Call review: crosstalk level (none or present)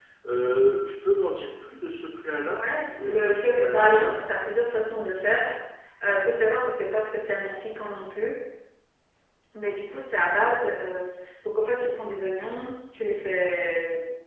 present